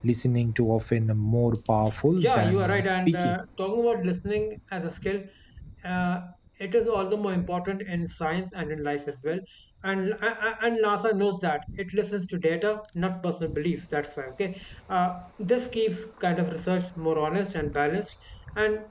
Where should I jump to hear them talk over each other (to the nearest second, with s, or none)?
2 s